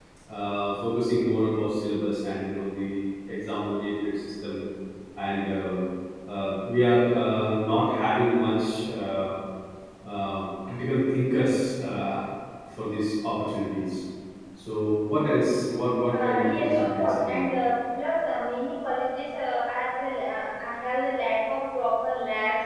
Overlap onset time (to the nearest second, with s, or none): 16 s